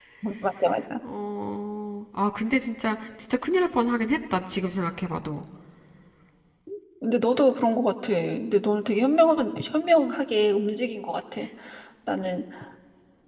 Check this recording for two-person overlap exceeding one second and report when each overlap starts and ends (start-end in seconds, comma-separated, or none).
none